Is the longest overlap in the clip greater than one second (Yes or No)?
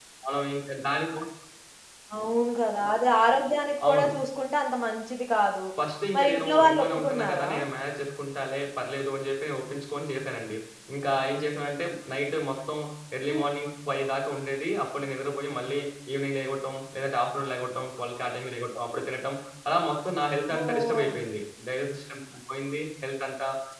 Yes